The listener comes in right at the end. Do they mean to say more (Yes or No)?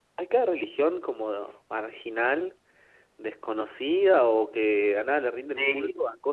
No